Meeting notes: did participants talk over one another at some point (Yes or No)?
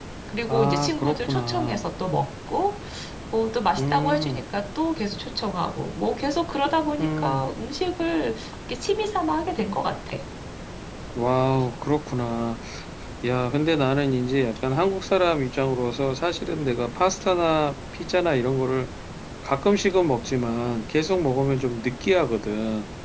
Yes